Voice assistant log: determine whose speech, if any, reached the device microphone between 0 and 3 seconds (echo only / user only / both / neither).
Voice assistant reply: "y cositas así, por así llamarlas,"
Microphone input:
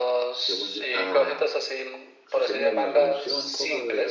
both